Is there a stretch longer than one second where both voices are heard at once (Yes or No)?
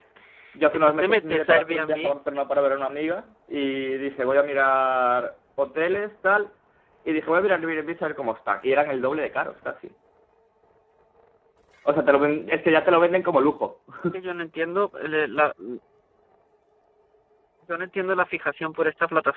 Yes